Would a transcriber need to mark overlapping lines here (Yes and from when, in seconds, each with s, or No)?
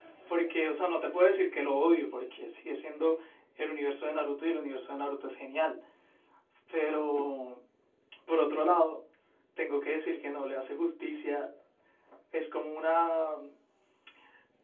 No